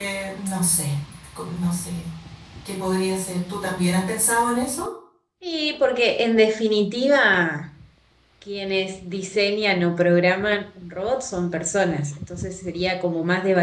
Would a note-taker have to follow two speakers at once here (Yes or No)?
No